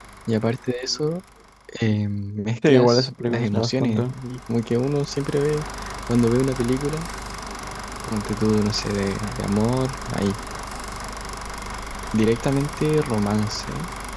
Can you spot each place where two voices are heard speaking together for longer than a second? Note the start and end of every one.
2.7-4.1

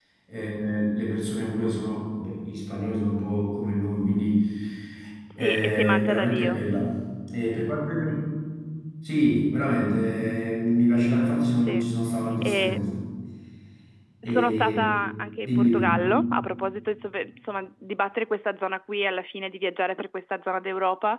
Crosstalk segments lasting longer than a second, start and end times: 5.4-6.6

